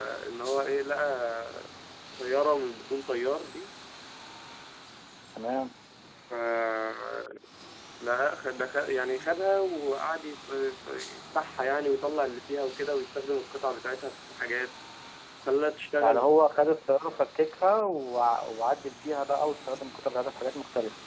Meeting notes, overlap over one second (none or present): none